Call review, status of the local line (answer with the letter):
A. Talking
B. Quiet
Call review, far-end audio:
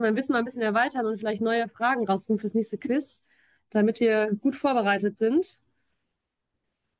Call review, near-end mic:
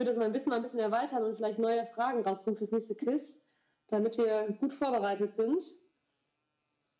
B